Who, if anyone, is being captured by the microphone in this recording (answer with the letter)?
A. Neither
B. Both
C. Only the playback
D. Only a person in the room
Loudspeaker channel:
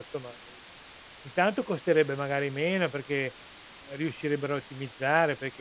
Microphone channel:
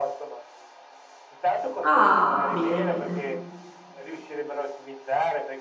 B